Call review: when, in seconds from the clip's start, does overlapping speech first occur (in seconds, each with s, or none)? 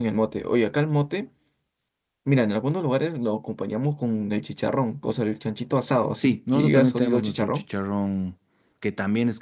6.2 s